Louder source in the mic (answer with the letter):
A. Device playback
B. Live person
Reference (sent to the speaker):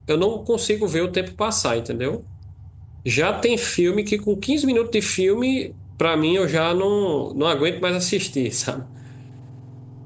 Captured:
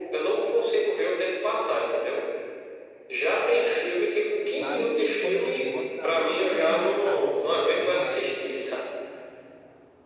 A